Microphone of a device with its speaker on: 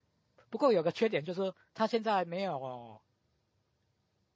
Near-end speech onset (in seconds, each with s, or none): 0.5 s